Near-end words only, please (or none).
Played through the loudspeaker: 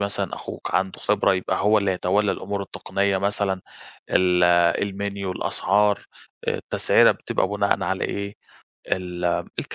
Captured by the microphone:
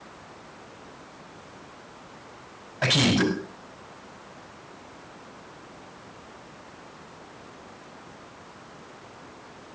أكيد.